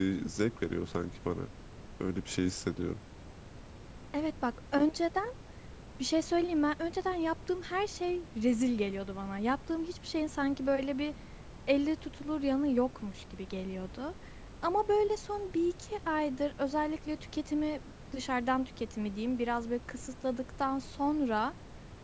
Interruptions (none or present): none